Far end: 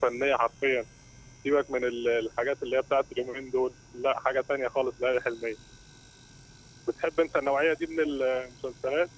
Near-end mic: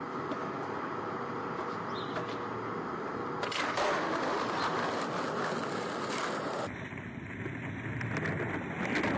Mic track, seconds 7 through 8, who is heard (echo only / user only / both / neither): neither